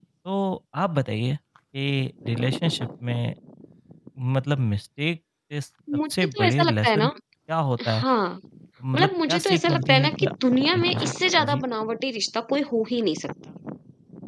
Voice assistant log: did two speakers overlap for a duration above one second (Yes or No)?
Yes